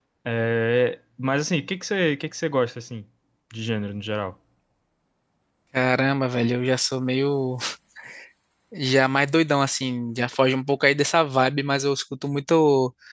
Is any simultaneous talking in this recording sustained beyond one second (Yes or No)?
No